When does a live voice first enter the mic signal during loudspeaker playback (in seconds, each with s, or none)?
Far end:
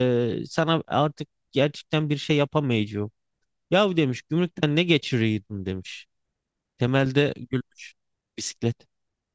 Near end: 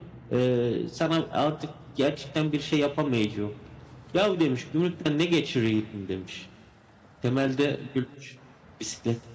none